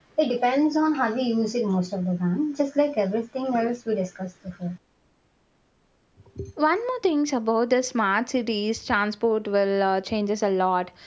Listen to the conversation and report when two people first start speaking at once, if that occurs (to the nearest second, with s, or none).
none